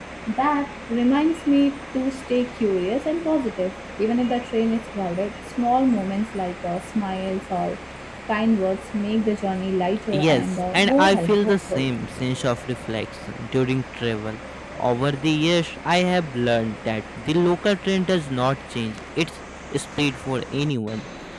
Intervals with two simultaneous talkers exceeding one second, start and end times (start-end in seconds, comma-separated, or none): 10.1-11.9